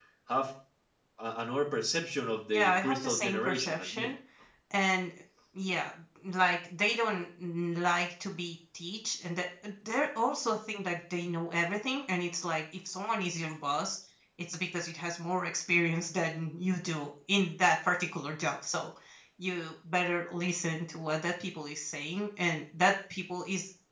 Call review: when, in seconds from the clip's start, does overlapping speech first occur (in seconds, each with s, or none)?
2.5 s